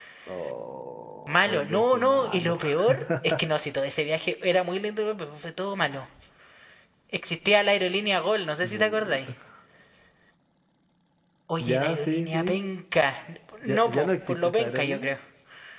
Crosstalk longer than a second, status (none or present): present